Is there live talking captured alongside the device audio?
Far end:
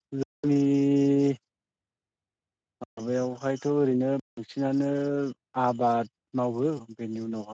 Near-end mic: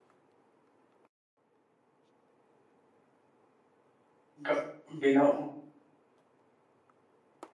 Yes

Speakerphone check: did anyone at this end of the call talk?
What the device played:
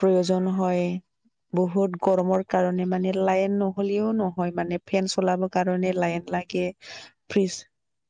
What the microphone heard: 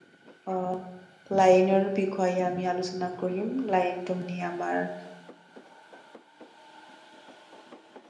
Yes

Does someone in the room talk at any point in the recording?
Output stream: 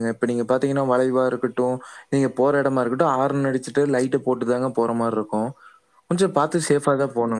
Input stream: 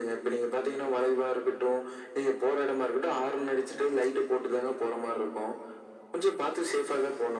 No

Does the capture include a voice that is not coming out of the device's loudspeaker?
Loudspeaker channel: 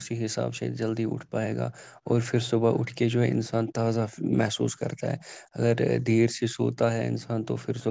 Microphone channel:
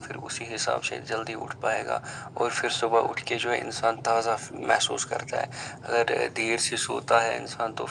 No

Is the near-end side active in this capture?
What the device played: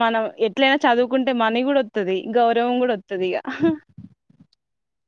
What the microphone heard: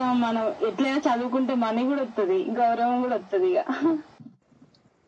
No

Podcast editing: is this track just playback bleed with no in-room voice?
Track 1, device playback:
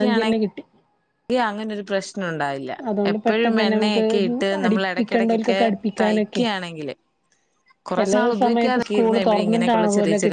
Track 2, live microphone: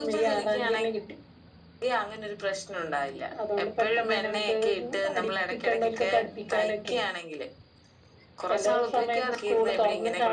Yes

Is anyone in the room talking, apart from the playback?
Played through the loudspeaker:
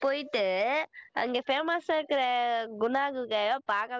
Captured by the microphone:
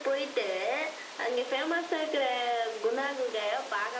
No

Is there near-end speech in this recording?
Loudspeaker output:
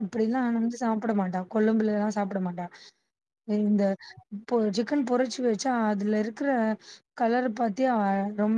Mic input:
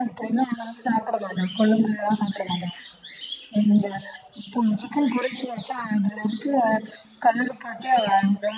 No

